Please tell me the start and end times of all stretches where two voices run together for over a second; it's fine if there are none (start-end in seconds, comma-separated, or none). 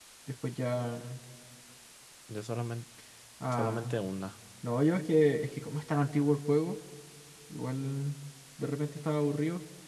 none